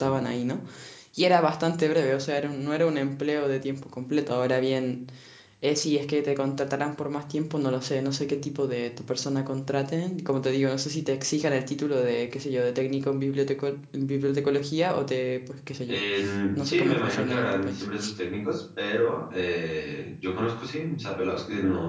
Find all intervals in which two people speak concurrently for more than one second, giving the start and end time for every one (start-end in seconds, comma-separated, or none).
16.6-17.8